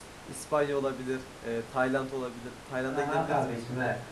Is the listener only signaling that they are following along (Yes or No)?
No